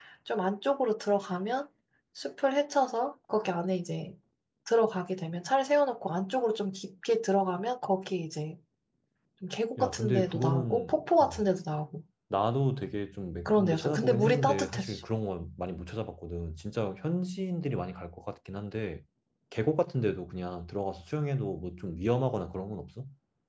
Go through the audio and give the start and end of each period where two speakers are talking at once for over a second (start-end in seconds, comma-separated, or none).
9.8-11.4, 13.4-15.0